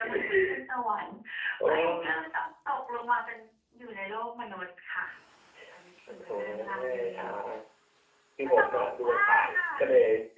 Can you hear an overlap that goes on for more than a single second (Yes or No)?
Yes